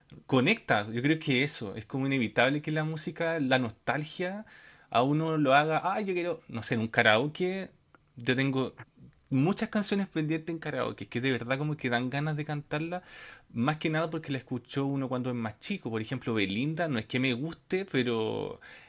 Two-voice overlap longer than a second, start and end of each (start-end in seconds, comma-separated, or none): none